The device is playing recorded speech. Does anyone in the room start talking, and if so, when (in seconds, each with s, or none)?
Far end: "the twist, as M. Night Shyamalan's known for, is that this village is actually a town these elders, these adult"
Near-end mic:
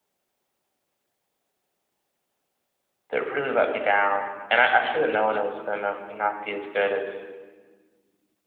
3.1 s